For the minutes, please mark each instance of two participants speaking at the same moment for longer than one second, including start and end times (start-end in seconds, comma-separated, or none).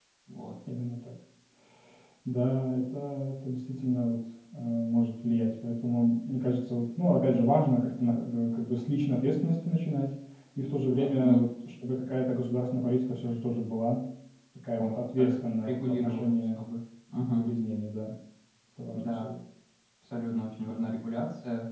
14.8-16.6